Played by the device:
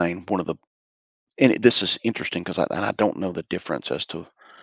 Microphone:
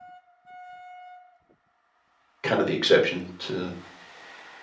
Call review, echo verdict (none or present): none